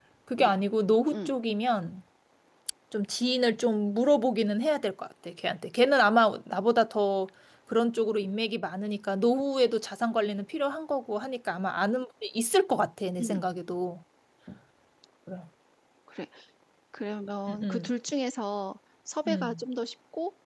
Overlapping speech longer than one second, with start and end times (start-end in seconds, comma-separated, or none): none